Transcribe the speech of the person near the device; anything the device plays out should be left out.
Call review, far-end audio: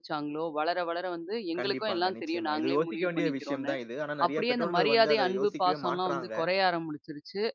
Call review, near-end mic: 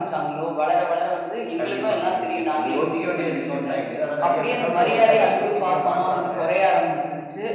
none

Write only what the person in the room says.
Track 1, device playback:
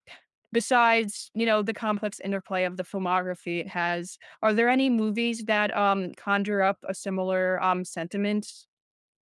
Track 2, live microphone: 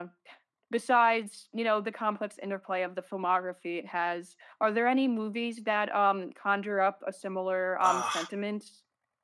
Uh,

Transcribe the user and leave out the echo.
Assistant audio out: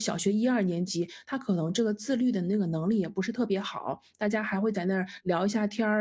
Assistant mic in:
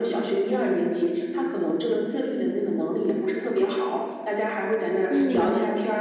嗯，明白。

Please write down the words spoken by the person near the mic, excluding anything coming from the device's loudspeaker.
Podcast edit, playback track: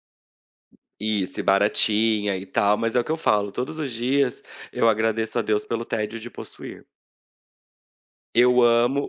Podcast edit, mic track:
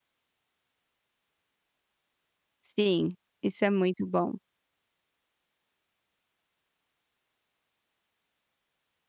Sim, isso é muito bom.

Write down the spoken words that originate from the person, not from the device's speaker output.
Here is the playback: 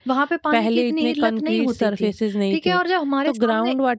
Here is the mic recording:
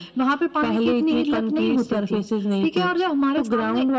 none

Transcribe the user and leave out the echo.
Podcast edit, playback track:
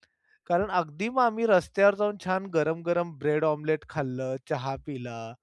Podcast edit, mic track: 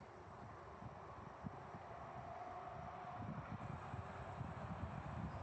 none

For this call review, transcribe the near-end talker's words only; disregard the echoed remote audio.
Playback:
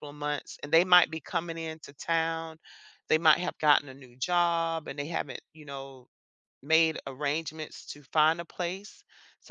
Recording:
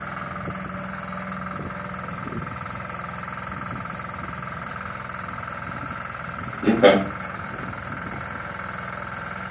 Okay.

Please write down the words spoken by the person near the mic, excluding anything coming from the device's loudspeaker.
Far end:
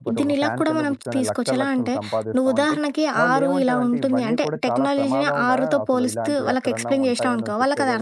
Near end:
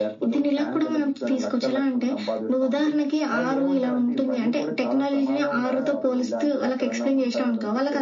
none

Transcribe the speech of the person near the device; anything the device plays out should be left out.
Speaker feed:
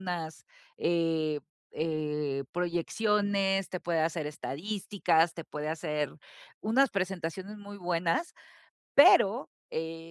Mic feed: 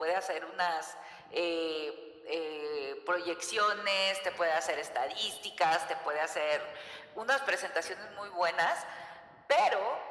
none

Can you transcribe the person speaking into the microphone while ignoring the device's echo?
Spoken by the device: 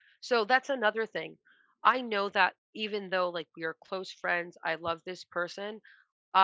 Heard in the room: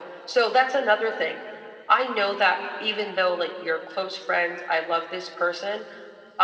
none

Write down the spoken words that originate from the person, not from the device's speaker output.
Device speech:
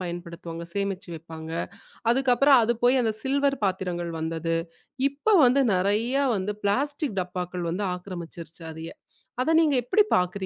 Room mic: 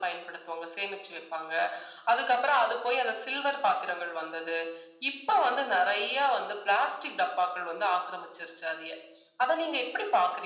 none

